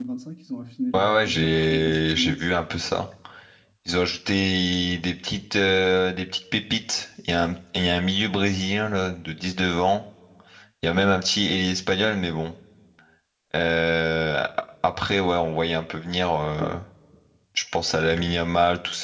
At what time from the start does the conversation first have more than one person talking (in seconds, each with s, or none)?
0.9 s